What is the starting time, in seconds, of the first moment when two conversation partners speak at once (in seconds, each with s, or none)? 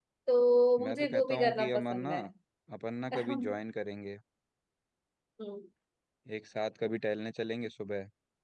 0.8 s